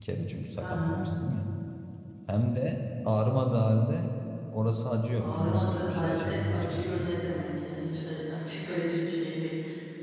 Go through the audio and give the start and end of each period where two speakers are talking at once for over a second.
5.2-7.1

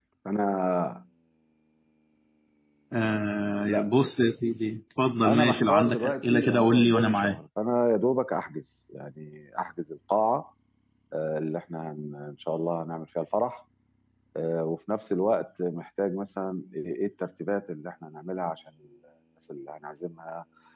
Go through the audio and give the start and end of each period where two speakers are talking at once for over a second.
5.2-7.4

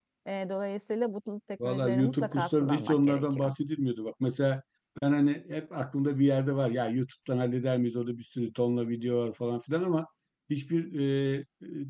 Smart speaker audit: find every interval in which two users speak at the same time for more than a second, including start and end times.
1.6-3.5

